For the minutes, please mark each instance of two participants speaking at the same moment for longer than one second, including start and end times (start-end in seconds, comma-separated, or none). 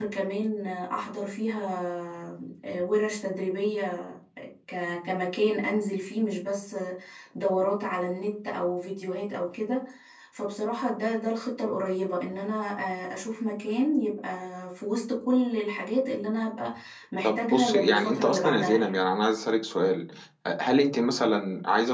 17.2-19.0